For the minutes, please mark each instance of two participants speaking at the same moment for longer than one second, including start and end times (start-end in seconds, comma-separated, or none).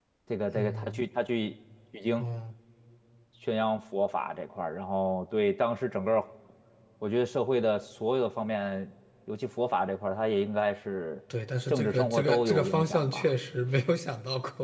11.7-13.3